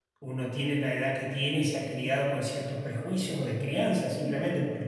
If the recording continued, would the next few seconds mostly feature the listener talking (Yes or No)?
No